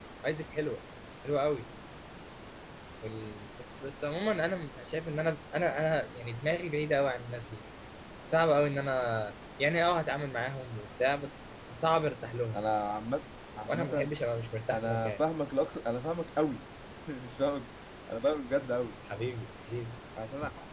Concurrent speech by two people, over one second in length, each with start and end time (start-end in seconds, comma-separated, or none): none